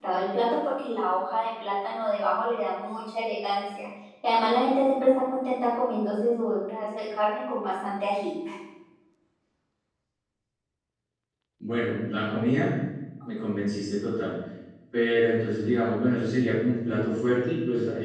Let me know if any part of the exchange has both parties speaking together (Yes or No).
No